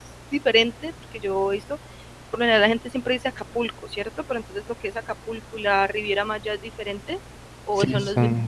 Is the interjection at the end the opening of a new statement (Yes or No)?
Yes